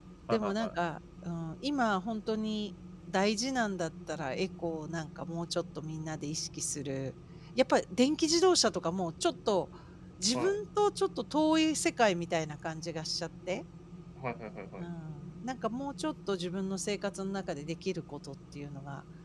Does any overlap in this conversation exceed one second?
No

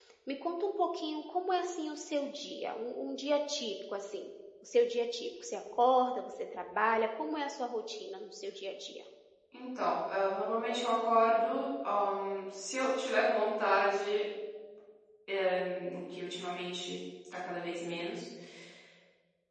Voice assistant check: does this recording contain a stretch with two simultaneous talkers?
No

